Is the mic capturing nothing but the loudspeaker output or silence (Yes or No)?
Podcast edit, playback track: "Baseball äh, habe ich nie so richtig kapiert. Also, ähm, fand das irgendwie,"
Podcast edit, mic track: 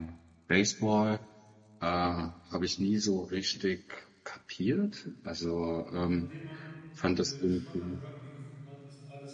No